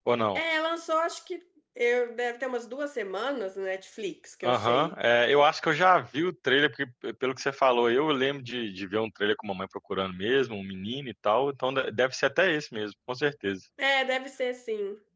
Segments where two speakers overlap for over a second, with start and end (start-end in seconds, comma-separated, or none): none